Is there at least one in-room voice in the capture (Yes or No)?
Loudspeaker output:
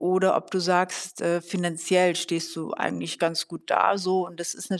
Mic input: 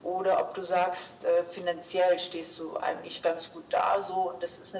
No